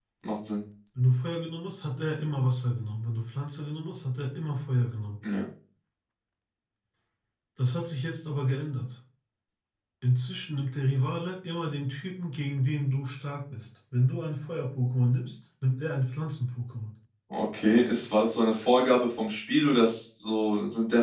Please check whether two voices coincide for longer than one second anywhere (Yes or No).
No